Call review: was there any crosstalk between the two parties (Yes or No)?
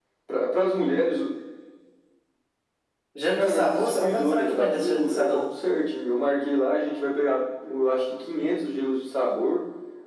Yes